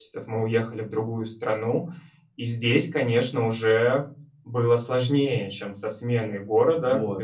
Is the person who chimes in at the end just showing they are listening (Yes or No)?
No